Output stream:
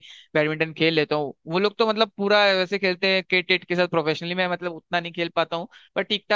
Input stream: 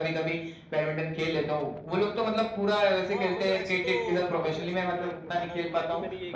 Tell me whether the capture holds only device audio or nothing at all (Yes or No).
No